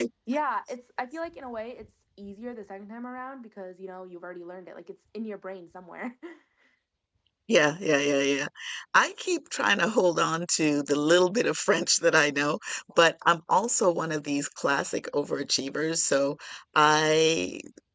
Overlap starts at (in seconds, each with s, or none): none